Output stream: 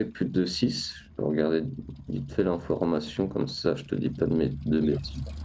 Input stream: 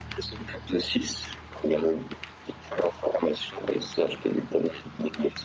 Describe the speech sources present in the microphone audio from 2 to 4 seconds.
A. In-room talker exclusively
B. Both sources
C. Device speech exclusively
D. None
C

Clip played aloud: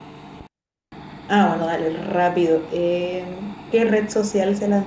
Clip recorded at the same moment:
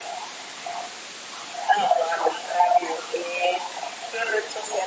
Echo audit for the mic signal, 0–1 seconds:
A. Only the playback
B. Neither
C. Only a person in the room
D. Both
B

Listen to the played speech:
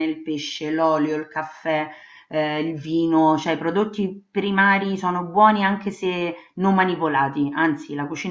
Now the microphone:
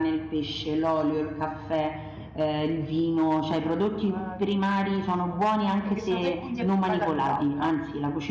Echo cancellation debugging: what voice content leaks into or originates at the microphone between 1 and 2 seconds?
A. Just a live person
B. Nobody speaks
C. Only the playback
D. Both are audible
C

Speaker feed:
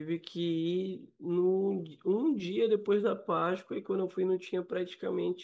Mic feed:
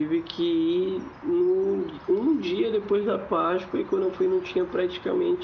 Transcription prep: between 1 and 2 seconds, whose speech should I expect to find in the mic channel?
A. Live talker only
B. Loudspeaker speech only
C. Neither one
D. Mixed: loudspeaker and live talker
B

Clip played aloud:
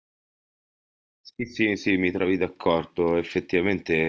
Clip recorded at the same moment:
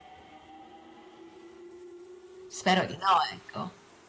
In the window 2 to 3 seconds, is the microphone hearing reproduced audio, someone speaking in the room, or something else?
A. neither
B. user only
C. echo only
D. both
B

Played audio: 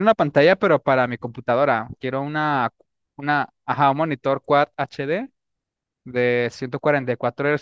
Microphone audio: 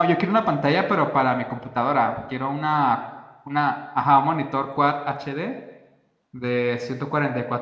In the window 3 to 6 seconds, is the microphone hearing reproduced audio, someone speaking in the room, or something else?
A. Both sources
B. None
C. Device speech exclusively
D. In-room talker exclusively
C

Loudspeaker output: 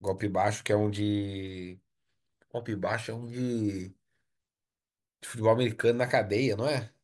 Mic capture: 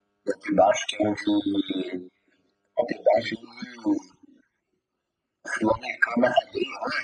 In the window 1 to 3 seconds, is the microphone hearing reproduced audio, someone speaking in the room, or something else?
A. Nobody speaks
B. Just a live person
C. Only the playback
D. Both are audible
C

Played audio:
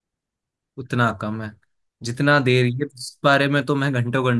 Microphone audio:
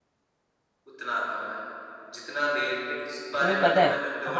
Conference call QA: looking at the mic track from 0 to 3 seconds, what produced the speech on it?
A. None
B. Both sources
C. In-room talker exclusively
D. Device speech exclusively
D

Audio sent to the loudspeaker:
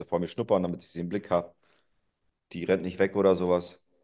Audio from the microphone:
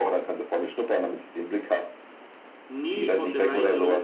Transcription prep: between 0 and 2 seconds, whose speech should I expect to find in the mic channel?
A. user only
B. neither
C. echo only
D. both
C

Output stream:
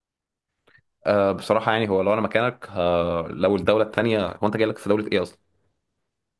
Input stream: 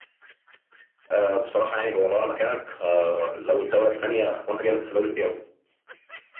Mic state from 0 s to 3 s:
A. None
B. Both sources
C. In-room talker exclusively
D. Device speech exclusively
D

